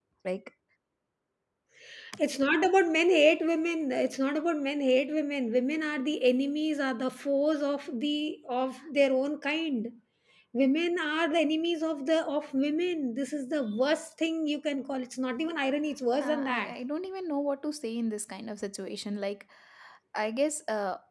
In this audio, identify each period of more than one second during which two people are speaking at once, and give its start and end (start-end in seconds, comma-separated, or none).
none